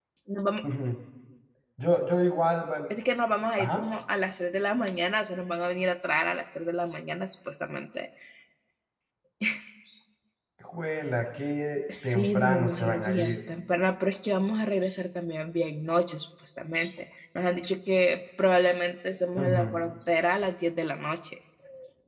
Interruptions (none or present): present